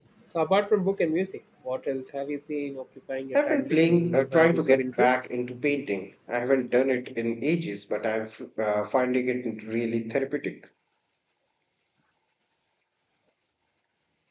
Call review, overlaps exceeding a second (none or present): present